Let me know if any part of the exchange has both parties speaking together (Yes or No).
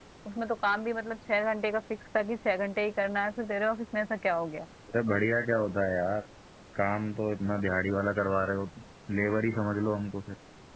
No